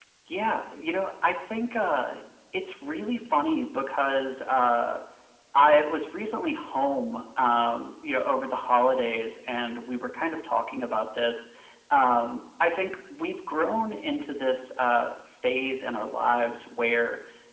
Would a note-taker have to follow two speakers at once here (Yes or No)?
No